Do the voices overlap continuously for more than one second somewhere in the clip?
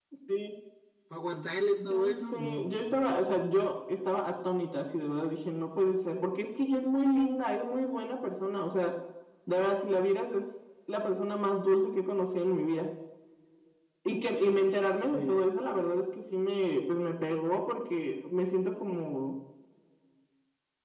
Yes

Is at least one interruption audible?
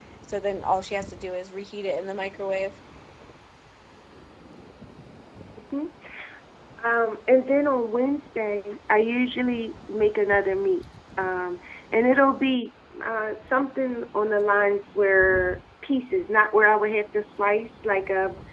No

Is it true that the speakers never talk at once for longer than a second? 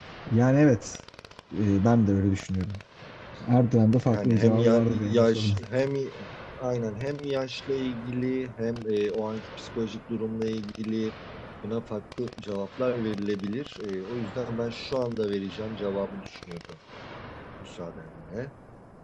No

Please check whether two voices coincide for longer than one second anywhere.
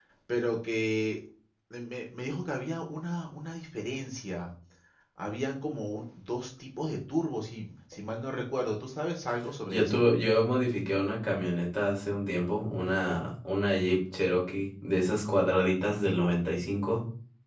No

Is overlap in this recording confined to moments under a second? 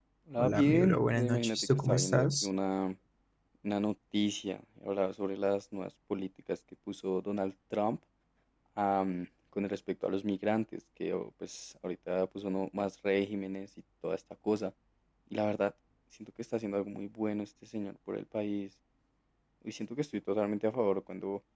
No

